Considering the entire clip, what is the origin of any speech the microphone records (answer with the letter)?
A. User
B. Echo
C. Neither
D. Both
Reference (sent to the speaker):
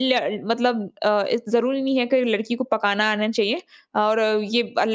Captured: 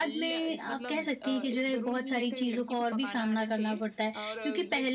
D